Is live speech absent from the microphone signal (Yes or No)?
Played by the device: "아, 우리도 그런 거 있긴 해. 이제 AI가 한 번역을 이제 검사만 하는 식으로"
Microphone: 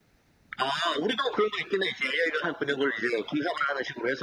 Yes